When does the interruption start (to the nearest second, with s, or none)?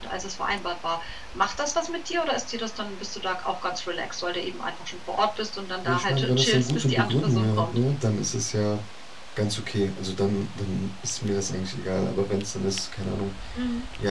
6 s